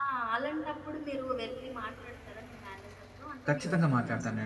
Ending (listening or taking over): taking over